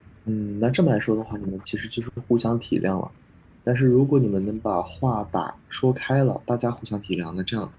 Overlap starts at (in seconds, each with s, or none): none